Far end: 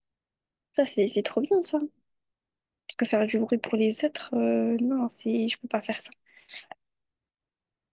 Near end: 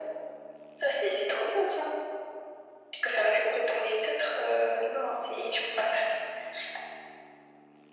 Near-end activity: none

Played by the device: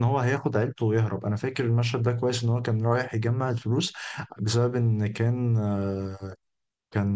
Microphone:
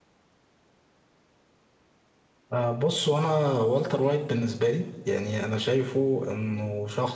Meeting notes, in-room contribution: present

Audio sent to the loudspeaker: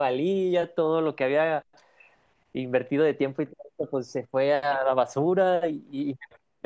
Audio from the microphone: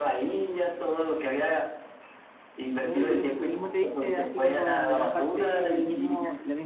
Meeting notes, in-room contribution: present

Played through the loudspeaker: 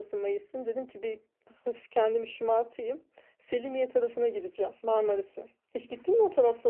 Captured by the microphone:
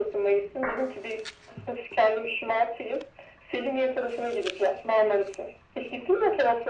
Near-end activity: none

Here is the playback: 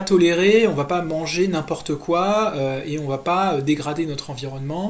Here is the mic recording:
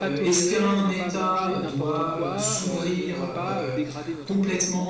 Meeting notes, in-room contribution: present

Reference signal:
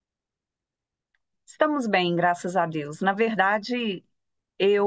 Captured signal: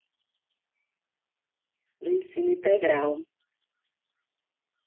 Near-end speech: present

